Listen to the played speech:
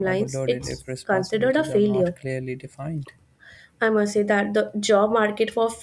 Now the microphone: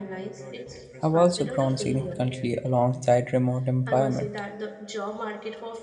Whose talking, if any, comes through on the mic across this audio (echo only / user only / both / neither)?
both